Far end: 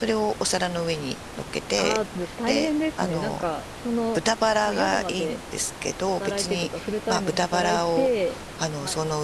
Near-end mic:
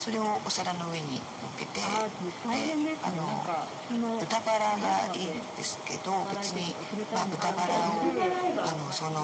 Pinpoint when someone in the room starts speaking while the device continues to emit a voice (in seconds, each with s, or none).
7.4 s